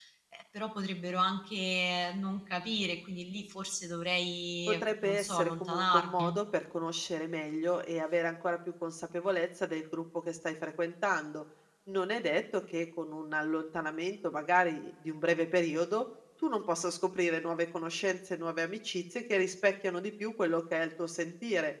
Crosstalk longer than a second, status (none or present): present